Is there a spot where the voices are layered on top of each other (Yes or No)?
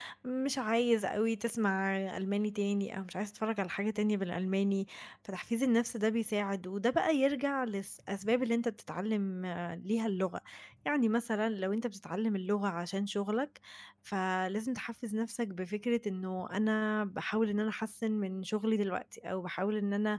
No